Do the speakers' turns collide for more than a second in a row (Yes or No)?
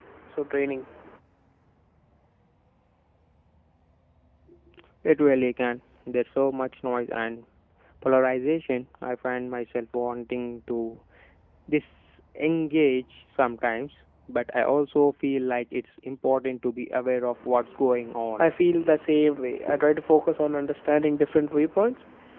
No